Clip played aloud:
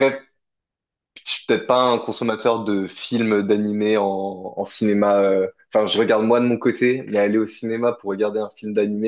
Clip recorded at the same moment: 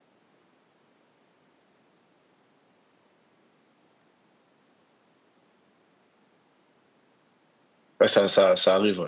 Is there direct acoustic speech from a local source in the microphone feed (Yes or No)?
Yes